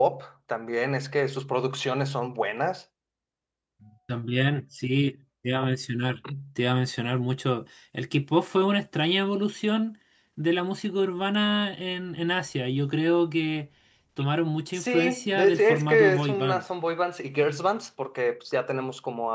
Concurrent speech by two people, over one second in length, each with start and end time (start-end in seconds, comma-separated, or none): 14.7-16.6